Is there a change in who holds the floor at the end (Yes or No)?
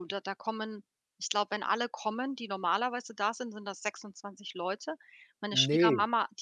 No